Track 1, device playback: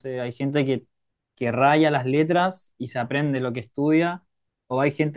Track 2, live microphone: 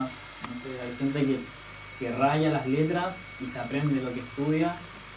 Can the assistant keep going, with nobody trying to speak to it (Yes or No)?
Yes